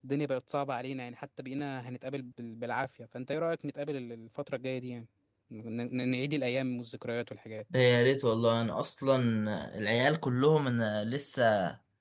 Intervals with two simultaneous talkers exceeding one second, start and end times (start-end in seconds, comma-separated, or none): none